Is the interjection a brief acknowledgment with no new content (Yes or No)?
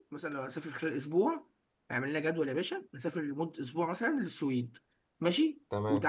Yes